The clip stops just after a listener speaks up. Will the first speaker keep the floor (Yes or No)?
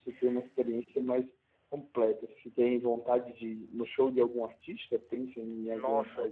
No